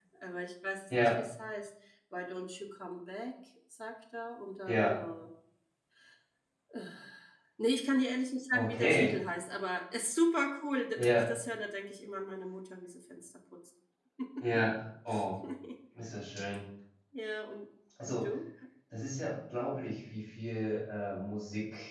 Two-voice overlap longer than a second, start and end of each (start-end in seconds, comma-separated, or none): none